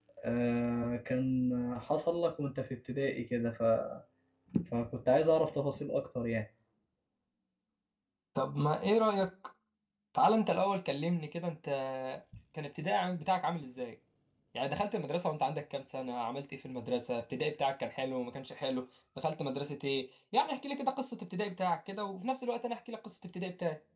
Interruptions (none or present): none